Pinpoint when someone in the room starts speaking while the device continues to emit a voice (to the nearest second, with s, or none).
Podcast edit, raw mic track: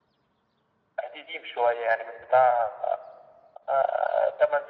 none